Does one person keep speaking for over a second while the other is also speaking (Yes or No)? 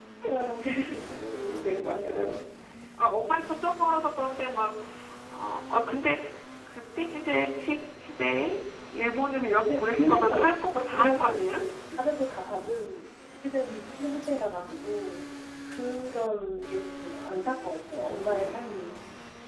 Yes